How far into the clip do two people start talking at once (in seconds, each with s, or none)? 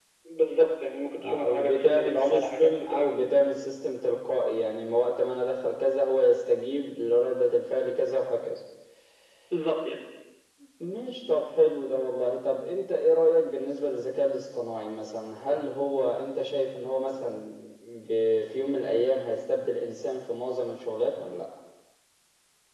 1.2 s